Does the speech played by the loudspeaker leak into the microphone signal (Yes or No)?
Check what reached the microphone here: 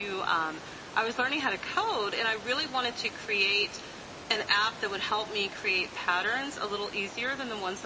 Yes